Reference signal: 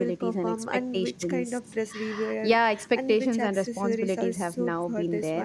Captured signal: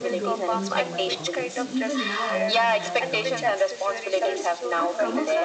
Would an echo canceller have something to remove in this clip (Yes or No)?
Yes